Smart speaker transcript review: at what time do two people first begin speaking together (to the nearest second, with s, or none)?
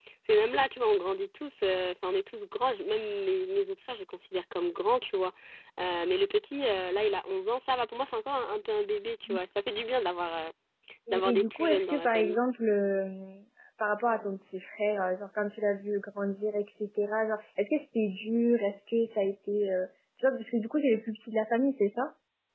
11 s